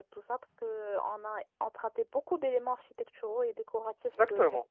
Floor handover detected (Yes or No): Yes